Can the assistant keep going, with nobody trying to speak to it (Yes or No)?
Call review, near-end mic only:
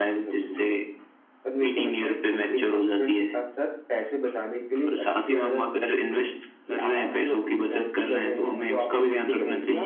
Yes